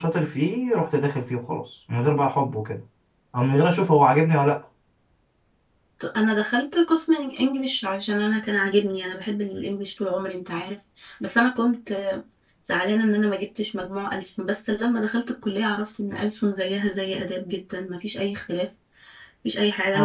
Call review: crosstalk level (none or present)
none